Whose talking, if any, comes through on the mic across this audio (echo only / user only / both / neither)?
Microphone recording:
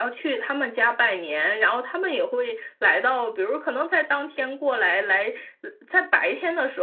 echo only